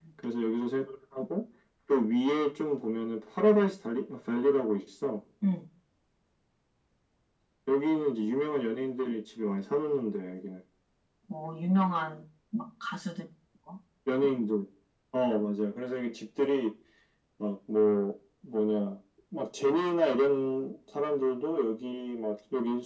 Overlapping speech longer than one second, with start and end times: none

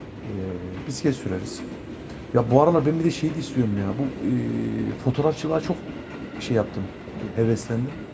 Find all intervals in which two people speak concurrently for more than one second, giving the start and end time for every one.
none

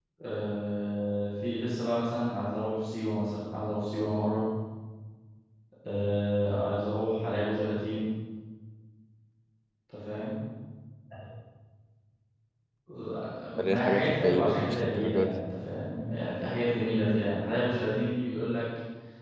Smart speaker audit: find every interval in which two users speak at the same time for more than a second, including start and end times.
13.7-15.3

